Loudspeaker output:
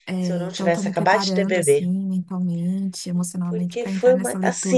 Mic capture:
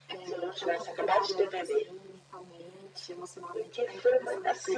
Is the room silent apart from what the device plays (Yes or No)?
Yes